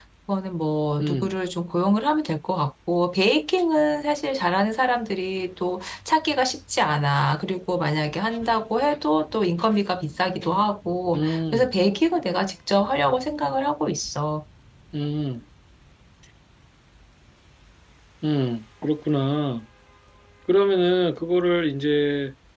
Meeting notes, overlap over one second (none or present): none